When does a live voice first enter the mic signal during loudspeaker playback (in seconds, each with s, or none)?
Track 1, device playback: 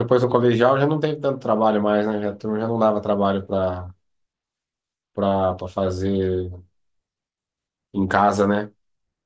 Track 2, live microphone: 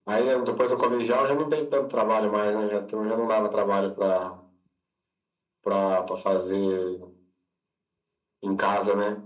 none